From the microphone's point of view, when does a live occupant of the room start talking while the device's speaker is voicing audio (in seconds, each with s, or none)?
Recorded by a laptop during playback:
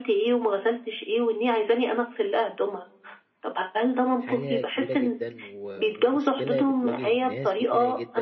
4.2 s